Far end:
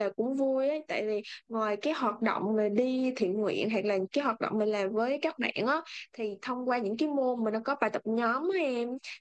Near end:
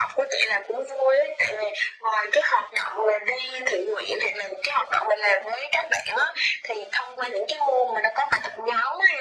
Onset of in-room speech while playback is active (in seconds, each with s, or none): none